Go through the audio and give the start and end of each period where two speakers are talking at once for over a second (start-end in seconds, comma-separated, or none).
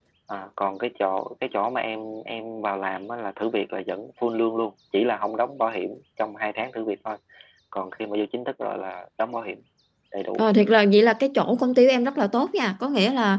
none